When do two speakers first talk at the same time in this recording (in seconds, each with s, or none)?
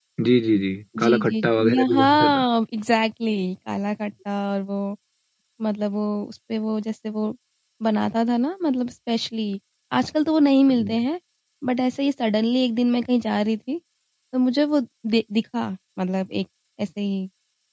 1.0 s